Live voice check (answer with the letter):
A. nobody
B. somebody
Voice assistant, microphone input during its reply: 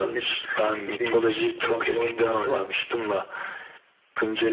A